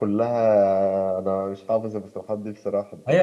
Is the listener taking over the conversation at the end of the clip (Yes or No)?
Yes